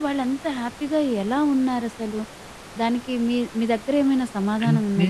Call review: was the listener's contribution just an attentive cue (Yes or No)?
No